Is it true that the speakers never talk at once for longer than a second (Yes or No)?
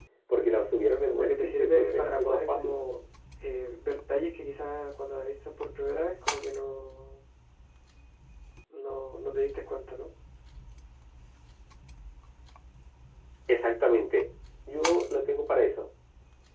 No